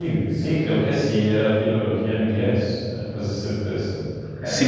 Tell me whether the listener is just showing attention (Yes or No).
No